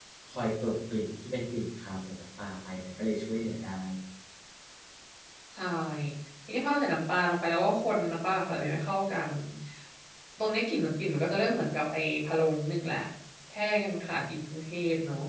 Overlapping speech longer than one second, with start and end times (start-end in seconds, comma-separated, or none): none